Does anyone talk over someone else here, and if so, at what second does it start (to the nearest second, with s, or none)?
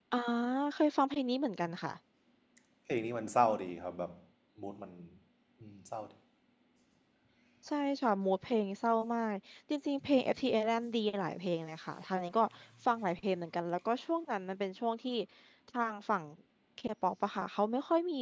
none